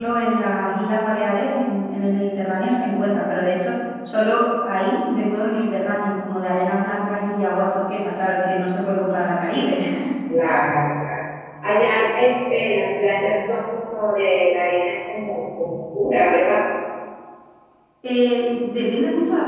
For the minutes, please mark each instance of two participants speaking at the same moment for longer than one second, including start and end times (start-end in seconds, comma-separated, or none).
none